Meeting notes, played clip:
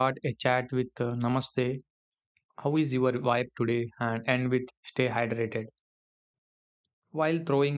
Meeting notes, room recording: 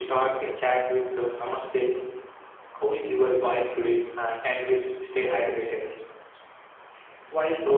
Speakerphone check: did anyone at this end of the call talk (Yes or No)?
No